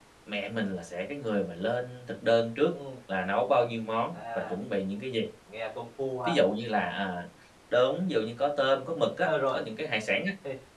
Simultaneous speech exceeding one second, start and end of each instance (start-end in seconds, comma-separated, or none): none